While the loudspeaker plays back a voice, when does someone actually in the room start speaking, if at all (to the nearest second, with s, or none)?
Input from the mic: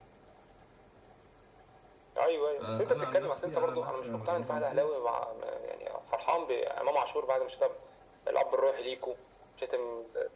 3 s